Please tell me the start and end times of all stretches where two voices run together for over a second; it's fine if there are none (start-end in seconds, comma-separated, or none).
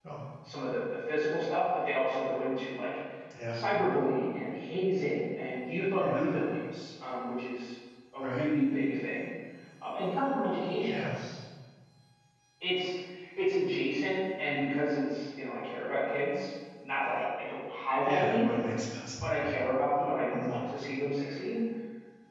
none